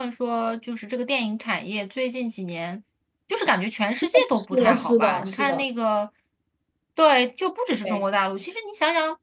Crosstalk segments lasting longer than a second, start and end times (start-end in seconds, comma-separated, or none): 4.1-5.7